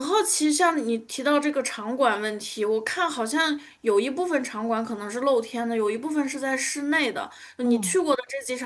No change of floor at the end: Yes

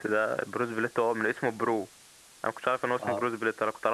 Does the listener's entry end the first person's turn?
No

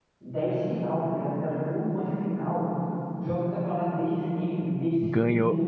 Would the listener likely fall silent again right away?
No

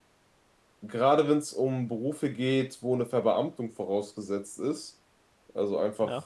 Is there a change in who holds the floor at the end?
No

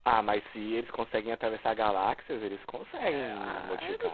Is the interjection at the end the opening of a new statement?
Yes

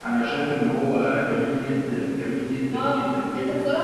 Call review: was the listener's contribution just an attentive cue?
No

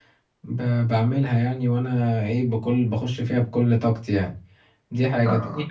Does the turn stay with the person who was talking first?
Yes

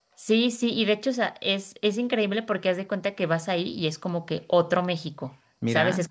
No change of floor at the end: Yes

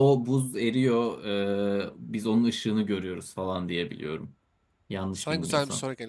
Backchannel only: No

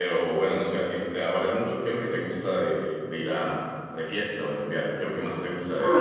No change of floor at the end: No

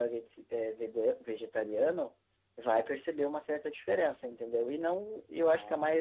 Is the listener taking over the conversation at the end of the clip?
No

